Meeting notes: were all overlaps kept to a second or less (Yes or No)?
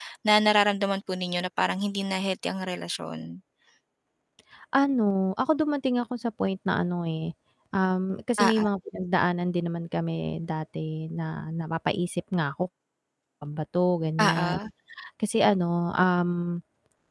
Yes